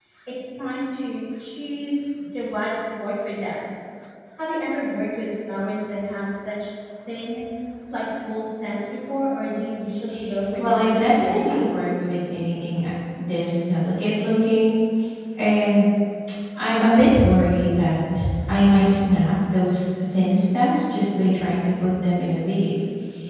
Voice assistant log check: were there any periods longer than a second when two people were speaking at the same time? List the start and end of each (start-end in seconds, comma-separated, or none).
10.6-11.9